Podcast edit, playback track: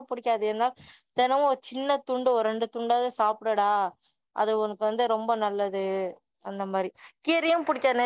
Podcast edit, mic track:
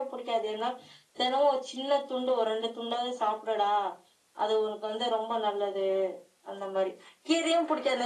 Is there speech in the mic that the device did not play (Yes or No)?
No